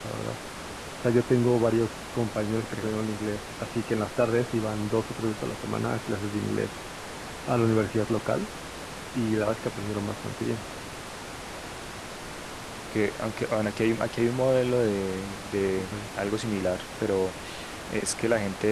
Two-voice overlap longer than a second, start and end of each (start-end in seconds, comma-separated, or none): none